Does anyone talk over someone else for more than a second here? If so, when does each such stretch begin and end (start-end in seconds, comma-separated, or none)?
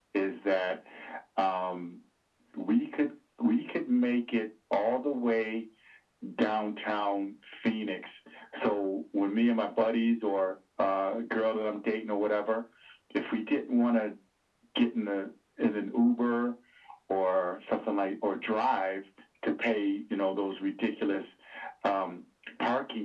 none